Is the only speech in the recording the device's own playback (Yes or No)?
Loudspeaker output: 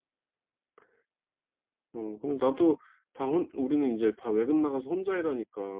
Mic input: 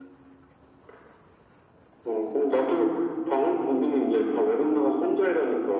Yes